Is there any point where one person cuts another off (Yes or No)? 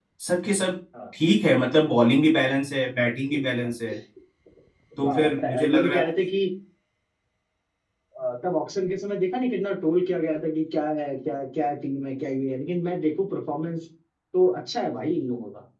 Yes